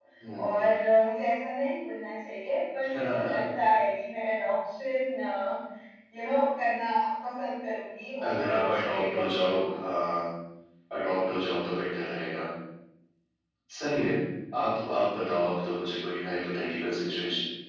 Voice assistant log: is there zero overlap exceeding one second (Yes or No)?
No